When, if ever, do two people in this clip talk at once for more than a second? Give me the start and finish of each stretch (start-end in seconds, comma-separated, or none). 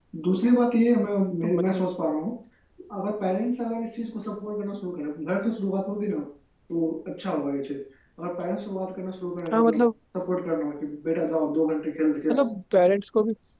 none